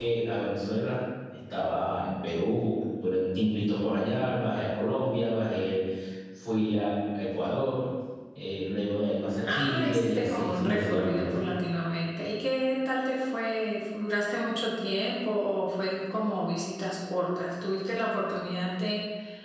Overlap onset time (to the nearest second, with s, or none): 9 s